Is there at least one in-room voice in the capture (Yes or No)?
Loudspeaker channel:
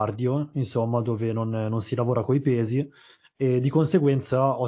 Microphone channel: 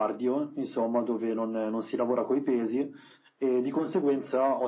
No